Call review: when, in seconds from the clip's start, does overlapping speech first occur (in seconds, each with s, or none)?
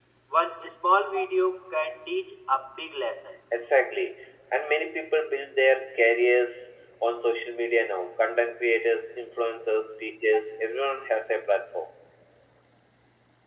none